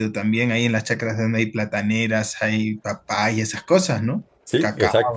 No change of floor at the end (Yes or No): No